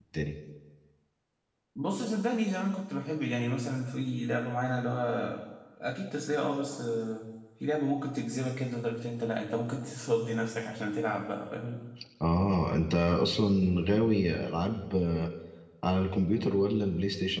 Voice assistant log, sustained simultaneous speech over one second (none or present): none